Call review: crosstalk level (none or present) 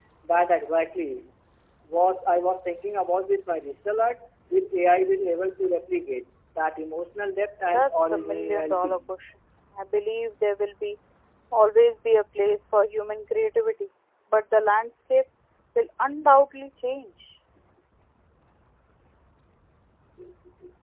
present